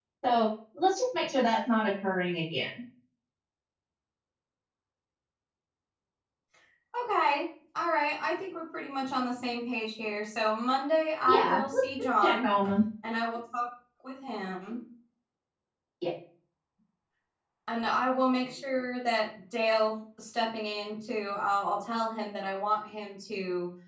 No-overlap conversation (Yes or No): No